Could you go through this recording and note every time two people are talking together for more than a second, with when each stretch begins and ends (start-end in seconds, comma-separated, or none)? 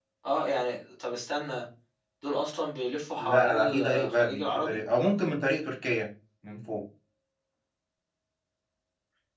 3.2-4.8